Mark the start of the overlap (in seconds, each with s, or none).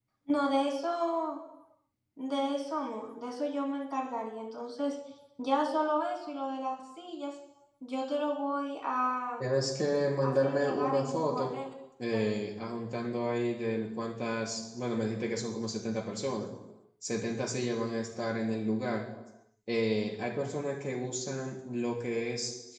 10.2 s